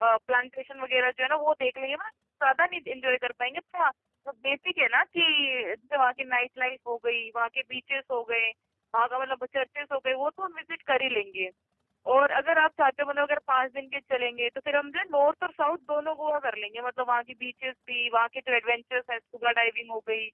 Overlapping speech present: No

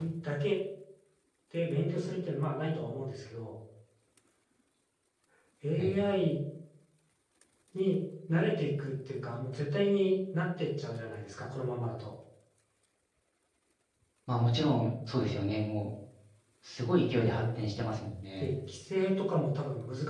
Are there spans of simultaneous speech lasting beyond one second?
No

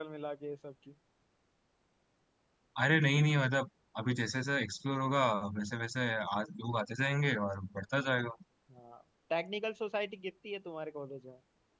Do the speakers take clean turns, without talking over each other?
Yes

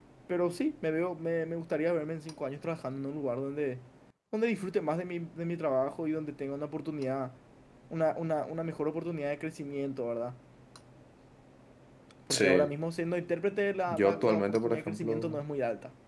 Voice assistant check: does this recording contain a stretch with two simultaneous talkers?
Yes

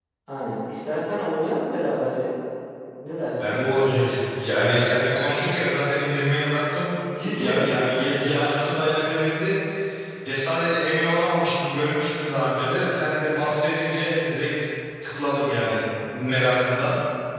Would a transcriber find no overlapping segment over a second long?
Yes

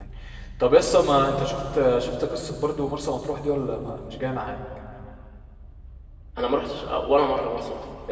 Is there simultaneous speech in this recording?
No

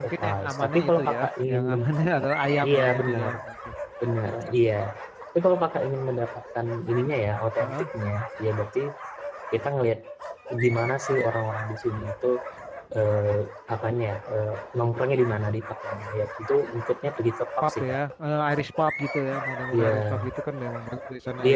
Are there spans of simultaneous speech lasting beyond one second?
Yes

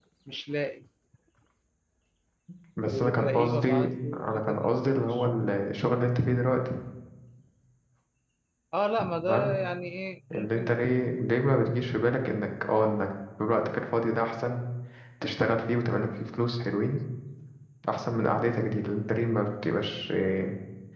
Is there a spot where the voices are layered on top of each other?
Yes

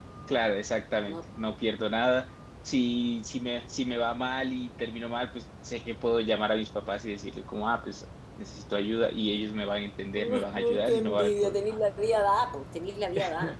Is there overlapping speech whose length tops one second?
Yes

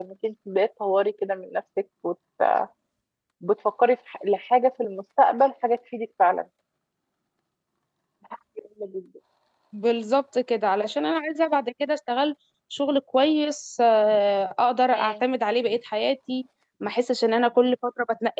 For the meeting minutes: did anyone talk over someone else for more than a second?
No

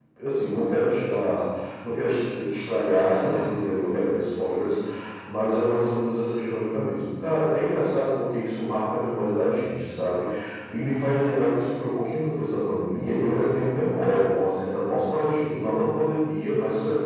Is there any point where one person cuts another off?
No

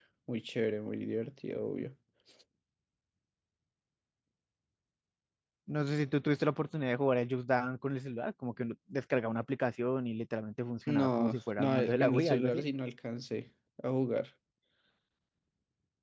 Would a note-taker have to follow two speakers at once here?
Yes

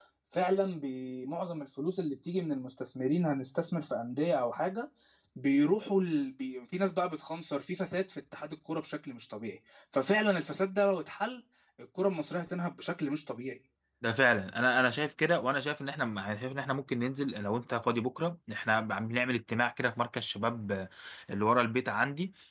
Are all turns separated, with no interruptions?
Yes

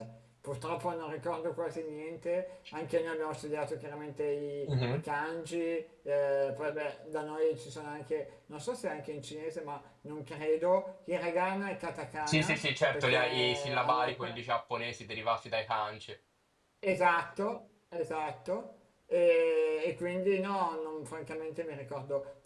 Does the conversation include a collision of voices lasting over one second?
Yes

